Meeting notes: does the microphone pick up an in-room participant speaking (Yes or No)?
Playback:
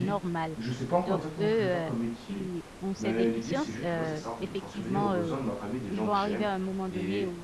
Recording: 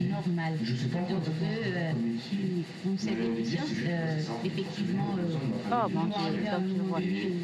Yes